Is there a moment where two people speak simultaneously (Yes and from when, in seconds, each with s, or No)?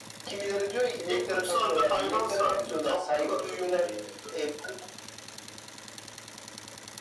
Yes, from 1.0 s